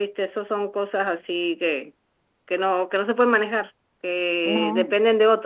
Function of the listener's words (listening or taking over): listening